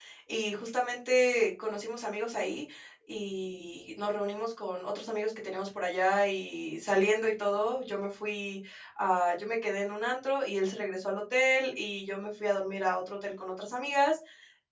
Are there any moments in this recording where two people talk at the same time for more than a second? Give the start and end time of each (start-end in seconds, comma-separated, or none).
none